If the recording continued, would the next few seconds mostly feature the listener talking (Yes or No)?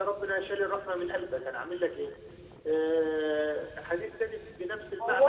Yes